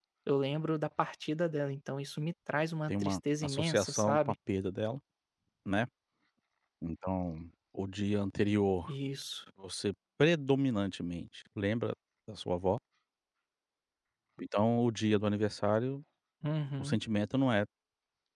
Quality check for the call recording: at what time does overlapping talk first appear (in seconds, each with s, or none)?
2.9 s